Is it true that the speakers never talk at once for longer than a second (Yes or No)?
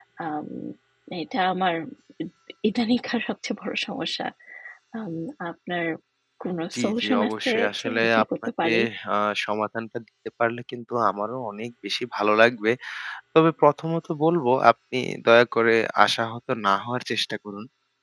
No